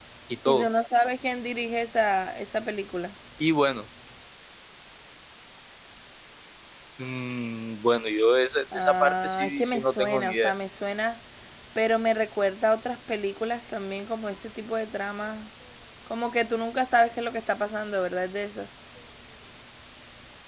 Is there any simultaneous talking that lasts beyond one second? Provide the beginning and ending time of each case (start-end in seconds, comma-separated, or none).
8.7-10.5